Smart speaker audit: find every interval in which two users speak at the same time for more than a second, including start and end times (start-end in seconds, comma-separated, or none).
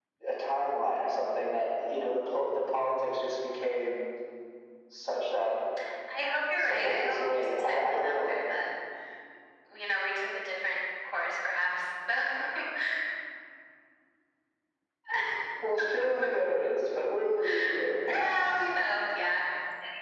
6.6-8.3